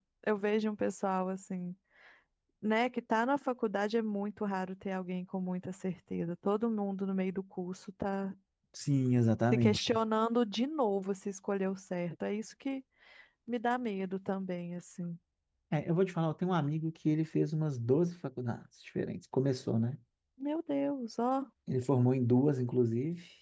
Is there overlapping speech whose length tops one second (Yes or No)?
No